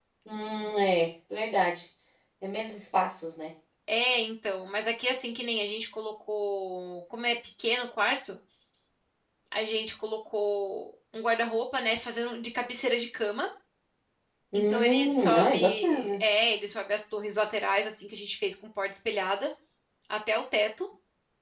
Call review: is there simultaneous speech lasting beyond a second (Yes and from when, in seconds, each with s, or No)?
Yes, from 14.5 s